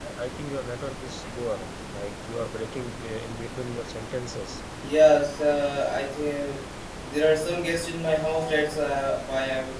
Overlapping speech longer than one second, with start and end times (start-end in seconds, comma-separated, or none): none